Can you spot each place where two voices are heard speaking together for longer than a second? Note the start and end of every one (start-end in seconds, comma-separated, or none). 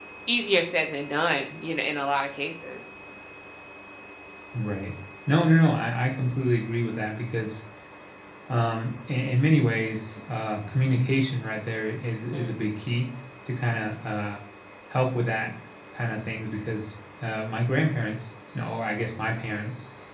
none